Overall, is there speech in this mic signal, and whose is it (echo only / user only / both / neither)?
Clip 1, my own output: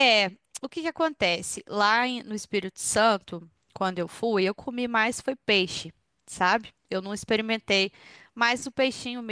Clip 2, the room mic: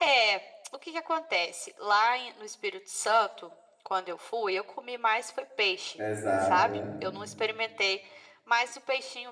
both